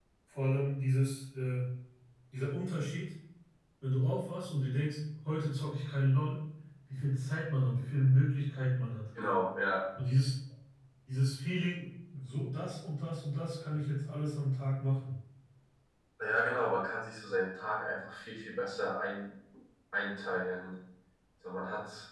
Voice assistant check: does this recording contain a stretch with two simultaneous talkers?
No

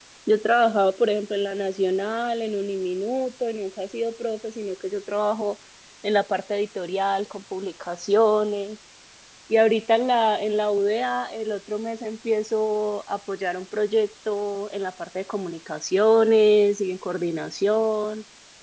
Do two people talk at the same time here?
No

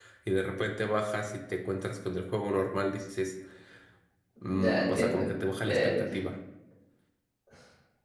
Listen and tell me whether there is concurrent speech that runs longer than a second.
Yes, from 4.5 s

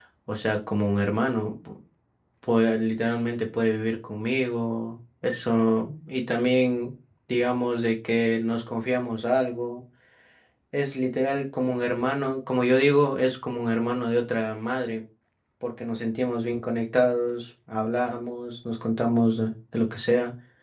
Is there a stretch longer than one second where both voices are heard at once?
No

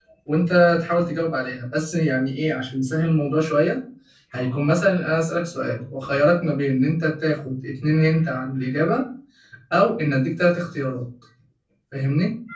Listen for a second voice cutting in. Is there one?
No

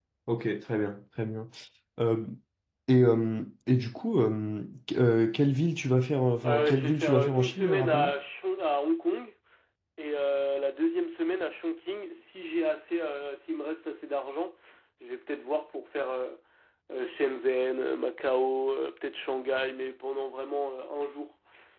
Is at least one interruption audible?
Yes, from 6.4 s

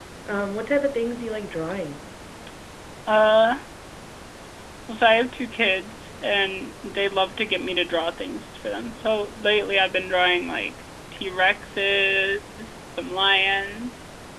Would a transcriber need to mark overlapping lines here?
No

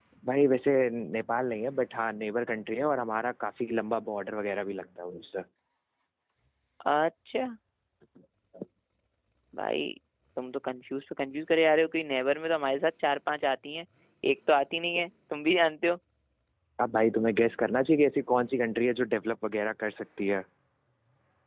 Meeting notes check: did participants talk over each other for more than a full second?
No

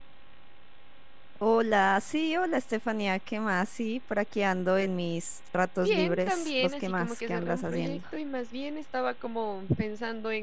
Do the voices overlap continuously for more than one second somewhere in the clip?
Yes, from 5.8 s

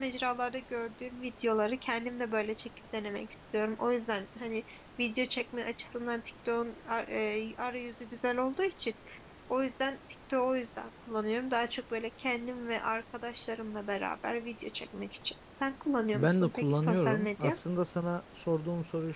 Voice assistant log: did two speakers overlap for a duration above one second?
Yes, from 16.1 s

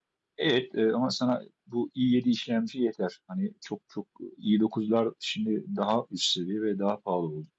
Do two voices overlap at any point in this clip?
No

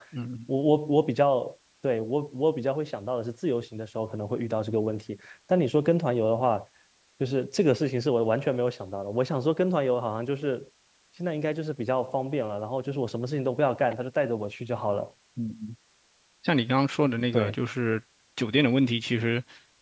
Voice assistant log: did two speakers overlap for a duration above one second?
No

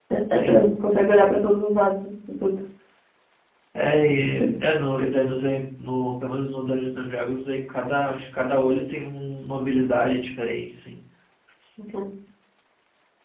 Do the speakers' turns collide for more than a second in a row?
No

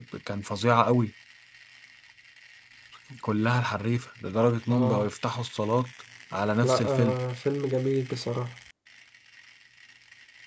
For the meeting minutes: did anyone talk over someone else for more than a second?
No

